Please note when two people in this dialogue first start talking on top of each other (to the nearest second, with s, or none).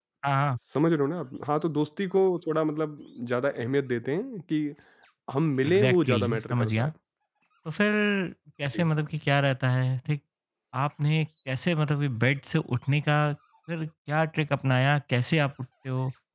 6 s